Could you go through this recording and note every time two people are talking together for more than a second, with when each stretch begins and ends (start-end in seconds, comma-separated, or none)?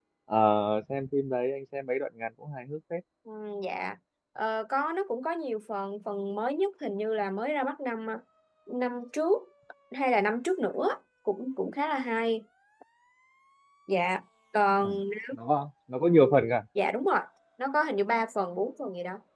none